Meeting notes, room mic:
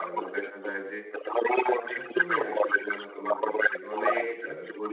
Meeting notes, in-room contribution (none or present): present